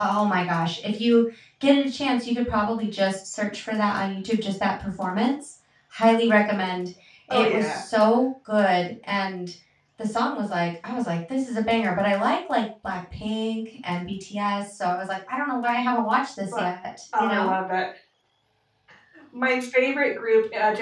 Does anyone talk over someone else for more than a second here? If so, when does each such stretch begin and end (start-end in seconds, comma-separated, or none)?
none